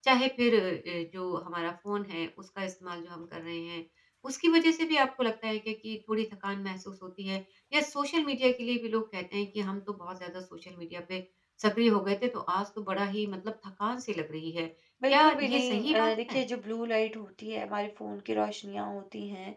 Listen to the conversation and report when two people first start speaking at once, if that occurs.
15.1 s

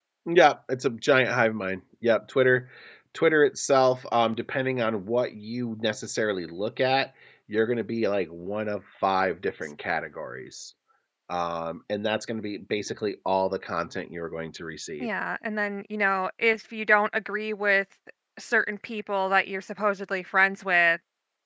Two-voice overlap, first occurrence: none

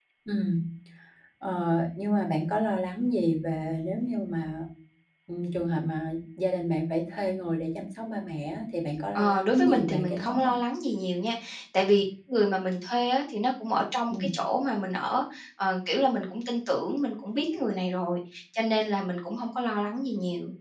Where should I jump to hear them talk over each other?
9.2 s

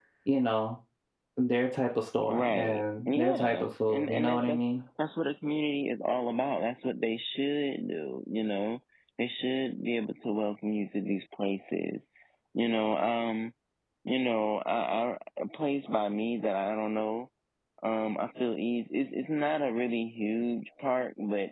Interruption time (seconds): 2.3 s

